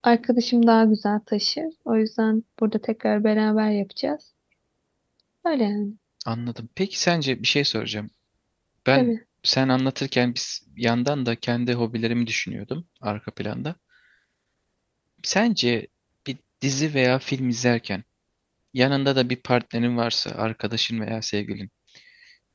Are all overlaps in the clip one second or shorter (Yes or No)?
Yes